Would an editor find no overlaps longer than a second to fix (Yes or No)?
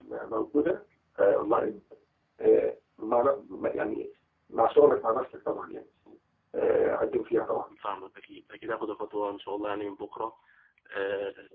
Yes